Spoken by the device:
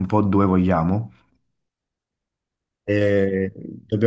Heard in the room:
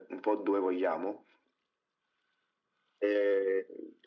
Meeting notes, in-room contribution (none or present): none